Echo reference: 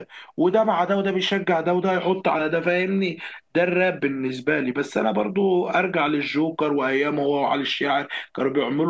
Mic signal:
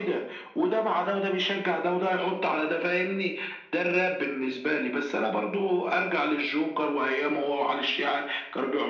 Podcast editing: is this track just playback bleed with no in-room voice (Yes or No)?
Yes